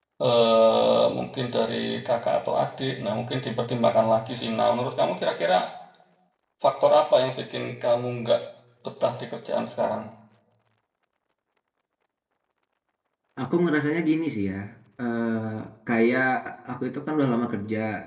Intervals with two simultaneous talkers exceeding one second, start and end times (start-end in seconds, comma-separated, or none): none